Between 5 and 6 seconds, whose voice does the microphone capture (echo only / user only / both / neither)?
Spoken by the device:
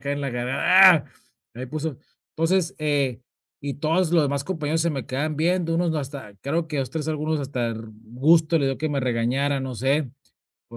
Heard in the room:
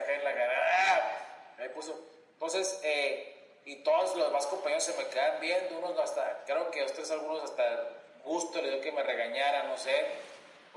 echo only